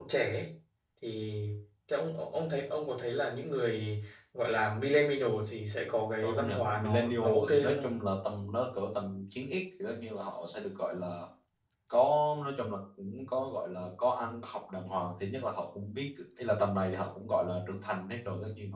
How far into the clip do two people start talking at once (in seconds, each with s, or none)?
6.2 s